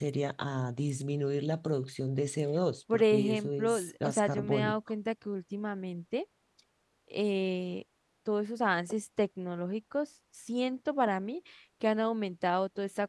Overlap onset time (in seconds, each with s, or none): 2.9 s